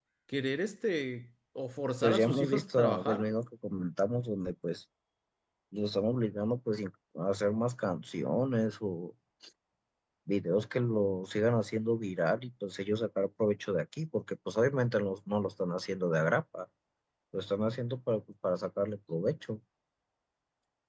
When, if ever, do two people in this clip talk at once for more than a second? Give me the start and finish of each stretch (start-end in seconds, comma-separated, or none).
2.0-3.2